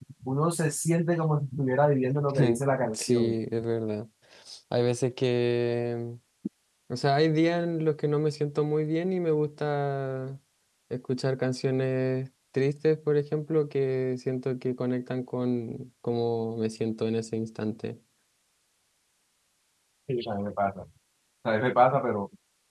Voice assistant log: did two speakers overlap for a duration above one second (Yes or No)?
No